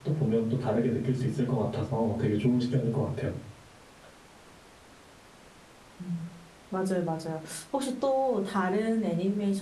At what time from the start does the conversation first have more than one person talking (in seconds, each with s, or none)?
none